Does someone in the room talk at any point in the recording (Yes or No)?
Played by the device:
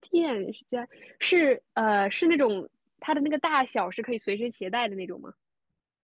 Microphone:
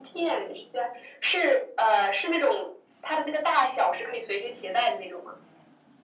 No